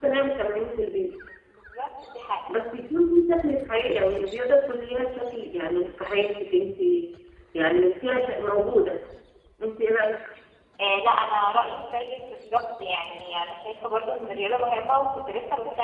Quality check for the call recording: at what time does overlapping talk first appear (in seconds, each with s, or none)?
none